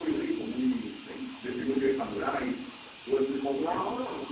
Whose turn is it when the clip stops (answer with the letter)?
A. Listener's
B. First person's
B